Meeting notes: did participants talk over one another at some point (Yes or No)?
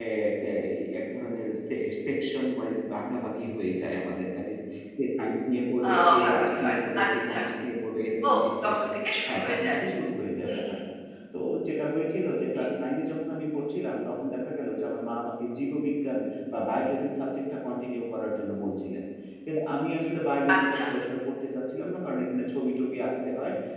Yes